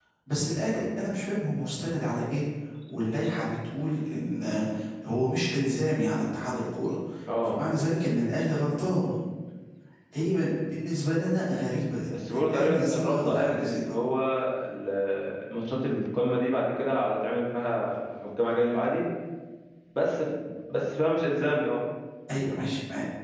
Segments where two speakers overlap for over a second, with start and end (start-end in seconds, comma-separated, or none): 12.3-14.0